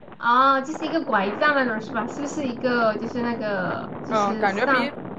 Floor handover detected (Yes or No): Yes